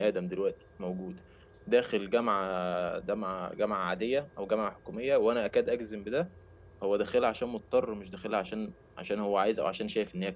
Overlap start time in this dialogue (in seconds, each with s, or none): none